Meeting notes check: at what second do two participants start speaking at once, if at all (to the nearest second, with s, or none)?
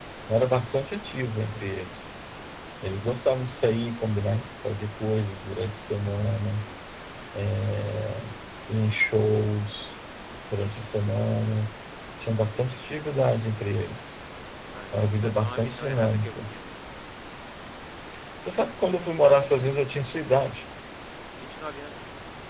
15 s